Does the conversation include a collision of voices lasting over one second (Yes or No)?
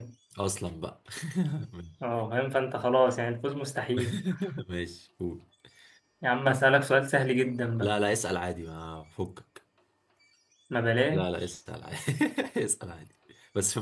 No